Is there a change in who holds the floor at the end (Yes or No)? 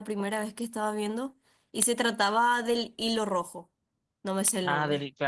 Yes